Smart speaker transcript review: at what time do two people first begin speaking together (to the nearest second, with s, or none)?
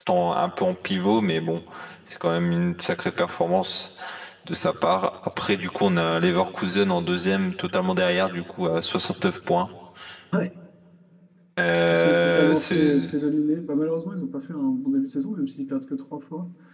12 s